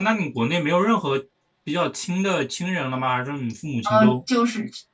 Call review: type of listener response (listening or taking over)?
taking over